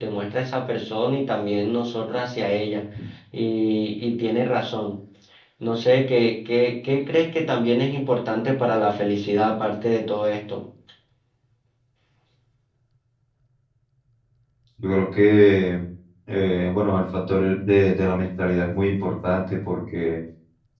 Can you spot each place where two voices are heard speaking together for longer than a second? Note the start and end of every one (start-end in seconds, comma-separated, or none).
none